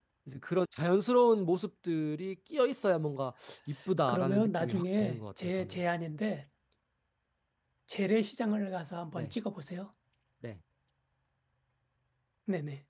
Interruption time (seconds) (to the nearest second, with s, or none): 4 s